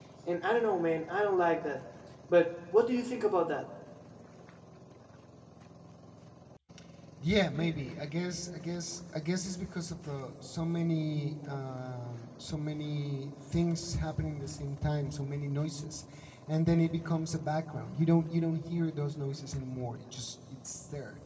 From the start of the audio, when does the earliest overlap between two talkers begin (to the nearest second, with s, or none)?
none